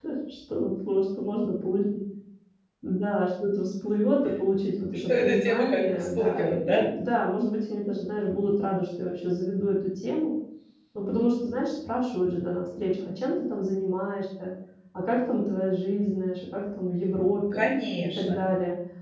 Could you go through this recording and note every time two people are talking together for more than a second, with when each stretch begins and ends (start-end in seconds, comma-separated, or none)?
5.1-6.8